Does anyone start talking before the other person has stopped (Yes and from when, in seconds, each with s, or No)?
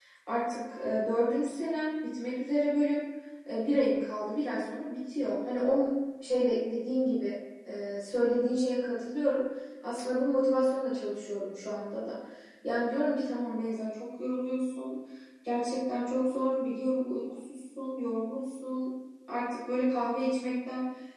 No